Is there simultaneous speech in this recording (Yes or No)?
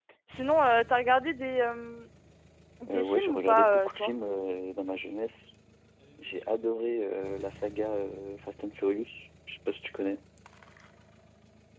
Yes